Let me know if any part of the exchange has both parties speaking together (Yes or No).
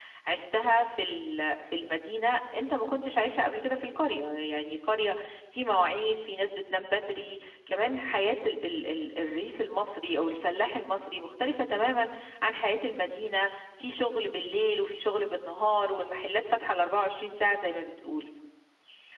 No